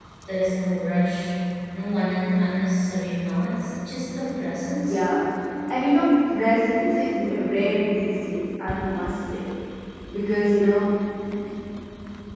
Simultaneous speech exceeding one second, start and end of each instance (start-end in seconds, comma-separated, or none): none